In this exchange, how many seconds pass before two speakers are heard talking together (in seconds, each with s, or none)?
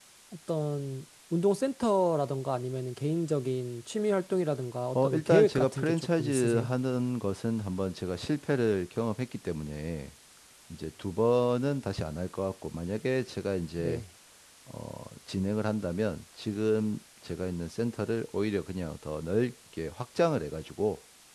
5.0 s